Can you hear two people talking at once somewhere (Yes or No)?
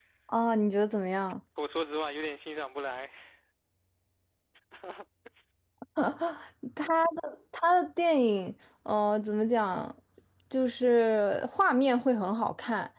No